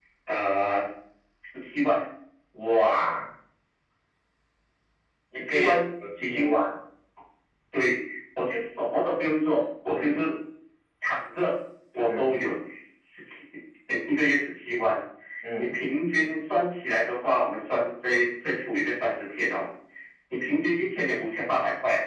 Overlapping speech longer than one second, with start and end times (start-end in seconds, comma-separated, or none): 5.3-6.6